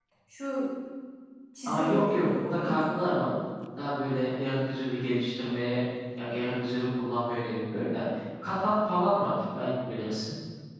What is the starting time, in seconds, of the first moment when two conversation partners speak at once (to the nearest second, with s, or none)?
2 s